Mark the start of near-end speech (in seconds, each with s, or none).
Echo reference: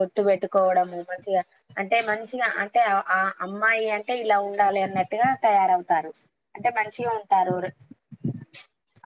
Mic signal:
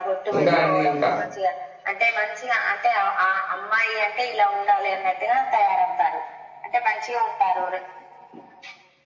0.4 s